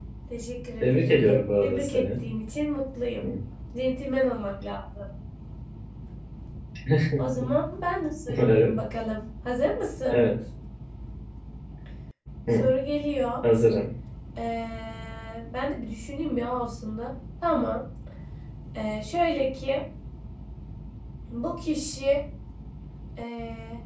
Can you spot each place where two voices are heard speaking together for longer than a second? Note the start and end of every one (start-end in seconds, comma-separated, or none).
0.8-2.2